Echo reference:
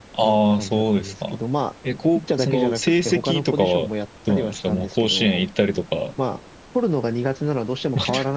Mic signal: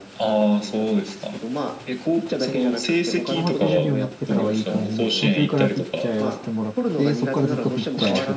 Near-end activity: present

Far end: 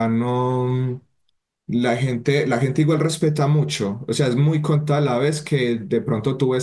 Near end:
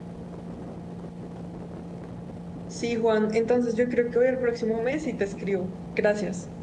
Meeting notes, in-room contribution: present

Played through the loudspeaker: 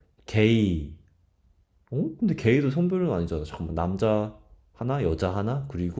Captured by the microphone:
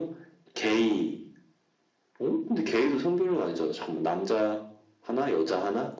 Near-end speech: none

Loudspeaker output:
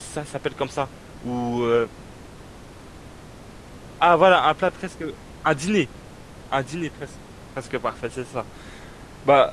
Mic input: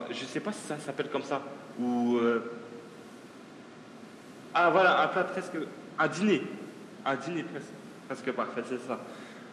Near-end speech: none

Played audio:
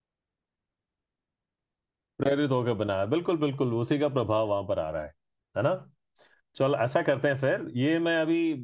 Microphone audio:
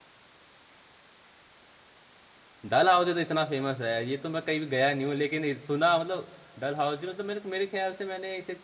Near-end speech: present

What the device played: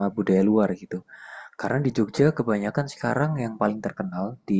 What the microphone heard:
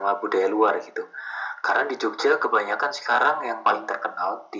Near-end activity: none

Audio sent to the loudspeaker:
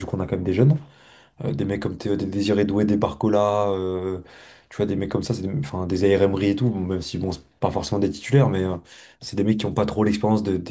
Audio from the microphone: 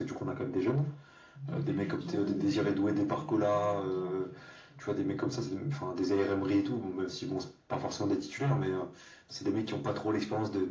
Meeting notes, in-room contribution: present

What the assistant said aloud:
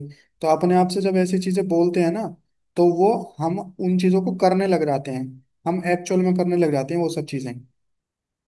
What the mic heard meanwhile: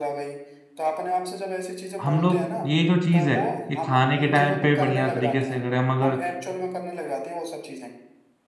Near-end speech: present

